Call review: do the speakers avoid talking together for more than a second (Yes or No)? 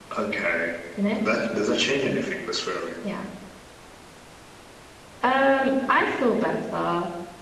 Yes